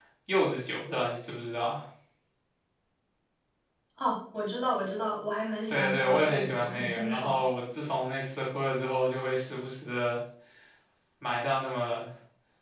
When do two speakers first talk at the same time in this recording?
5.7 s

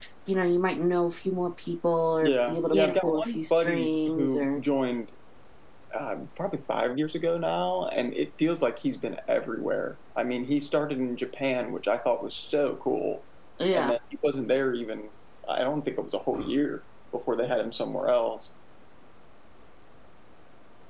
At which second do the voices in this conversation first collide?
2.2 s

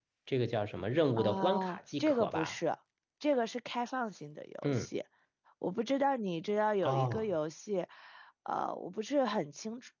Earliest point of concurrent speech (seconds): 1.2 s

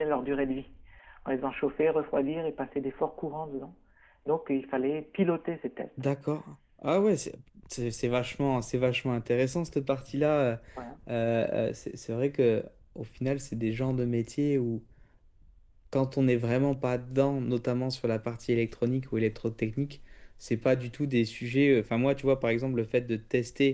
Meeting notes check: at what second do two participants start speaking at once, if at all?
none

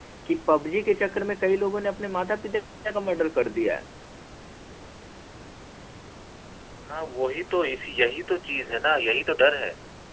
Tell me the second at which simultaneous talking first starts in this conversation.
none

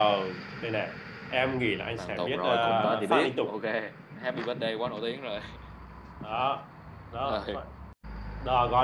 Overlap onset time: 2.0 s

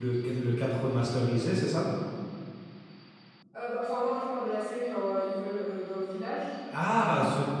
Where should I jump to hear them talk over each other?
none

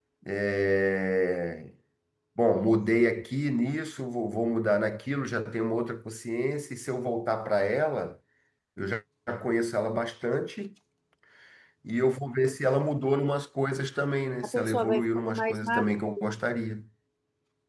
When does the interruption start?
14.4 s

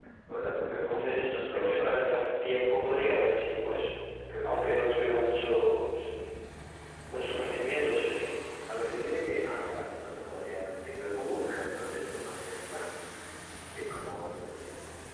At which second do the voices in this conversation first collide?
0.8 s

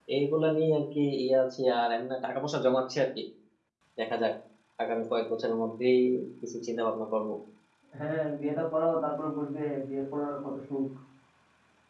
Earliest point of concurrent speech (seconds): none

